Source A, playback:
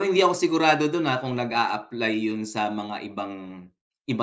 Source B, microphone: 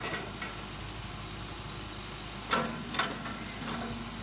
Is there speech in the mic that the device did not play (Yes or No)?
No